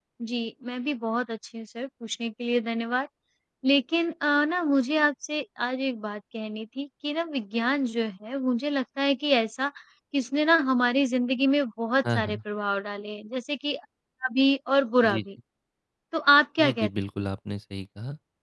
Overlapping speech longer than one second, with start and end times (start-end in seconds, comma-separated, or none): none